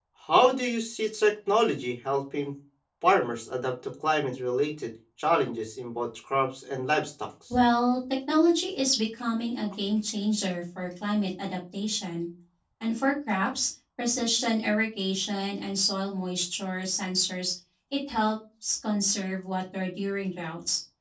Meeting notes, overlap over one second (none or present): none